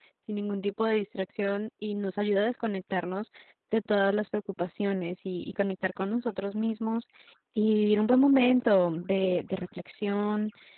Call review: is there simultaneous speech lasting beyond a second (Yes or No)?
No